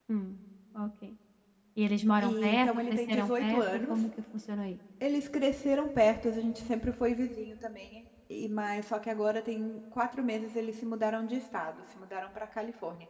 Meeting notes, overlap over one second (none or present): present